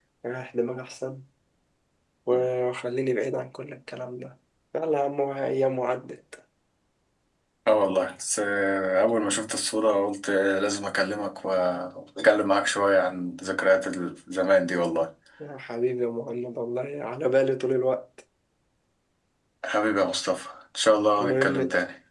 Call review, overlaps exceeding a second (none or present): none